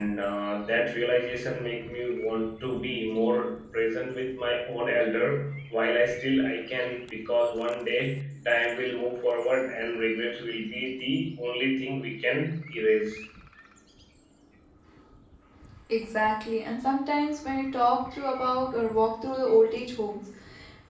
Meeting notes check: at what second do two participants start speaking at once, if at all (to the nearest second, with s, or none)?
none